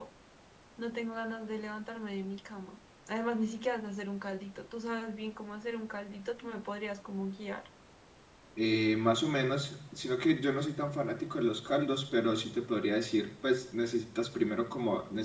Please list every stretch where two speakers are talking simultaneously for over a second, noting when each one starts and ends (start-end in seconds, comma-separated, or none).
none